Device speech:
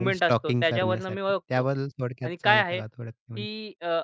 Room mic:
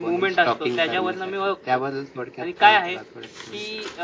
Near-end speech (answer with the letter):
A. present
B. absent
B